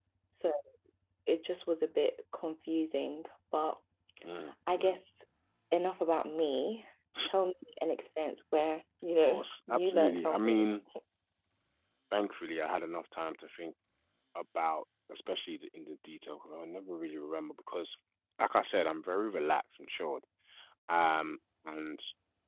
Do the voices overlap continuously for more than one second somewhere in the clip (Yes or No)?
Yes